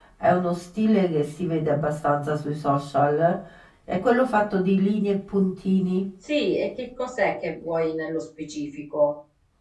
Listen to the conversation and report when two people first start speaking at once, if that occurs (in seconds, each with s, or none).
none